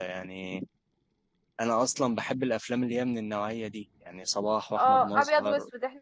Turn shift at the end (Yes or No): Yes